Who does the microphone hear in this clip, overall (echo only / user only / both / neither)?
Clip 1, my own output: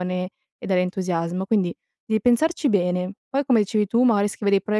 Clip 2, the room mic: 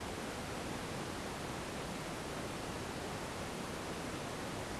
neither